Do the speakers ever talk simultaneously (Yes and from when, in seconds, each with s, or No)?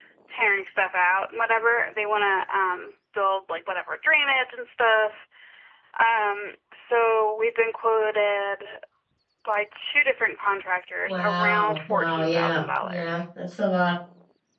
Yes, from 11.1 s